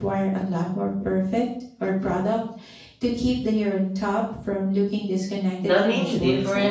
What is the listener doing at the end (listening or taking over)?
taking over